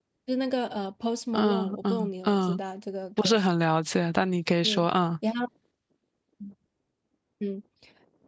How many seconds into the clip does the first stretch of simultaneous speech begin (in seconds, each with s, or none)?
1.3 s